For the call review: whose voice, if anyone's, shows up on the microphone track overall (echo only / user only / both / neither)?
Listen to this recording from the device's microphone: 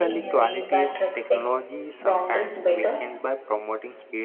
both